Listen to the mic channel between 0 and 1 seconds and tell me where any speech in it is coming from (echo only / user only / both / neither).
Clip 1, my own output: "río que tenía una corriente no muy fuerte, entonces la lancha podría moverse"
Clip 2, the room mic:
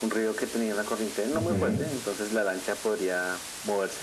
echo only